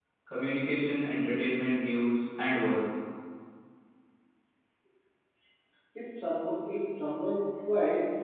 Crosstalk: none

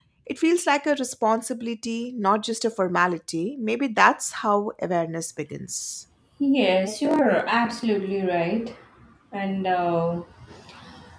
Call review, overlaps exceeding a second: none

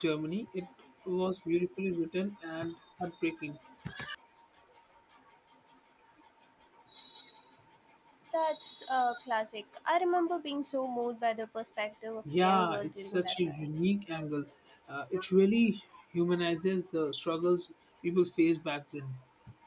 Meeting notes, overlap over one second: present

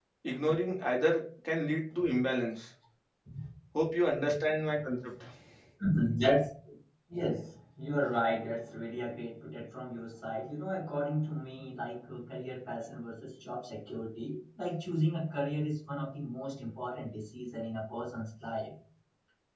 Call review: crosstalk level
none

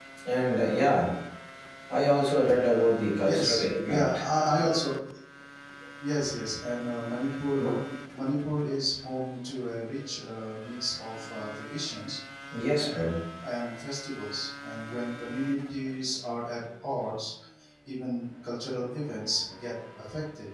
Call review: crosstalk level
present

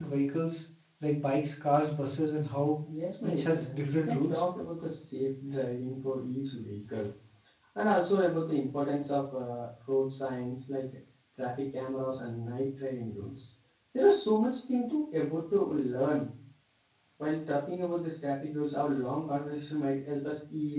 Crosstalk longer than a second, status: present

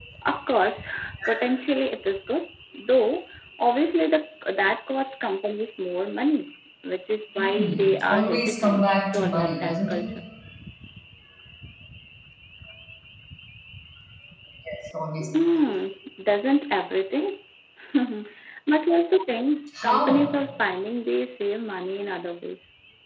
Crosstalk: present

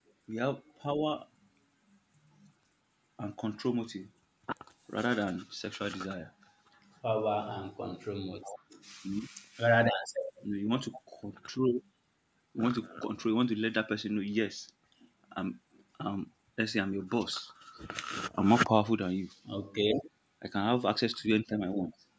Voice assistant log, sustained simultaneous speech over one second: none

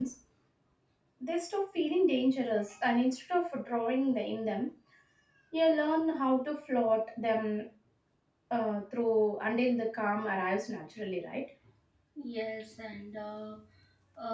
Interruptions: none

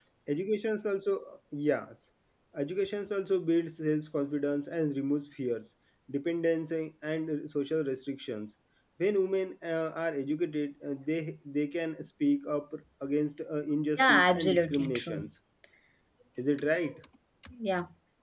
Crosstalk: present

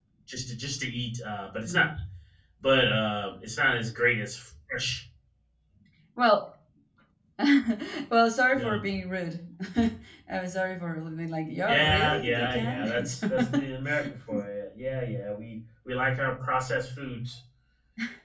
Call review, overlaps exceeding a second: present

